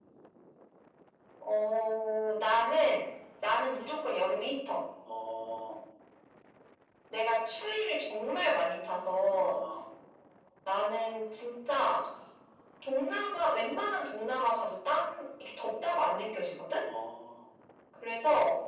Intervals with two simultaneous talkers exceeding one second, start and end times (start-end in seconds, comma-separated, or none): none